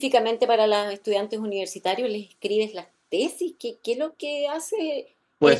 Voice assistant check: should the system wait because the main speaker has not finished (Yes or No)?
No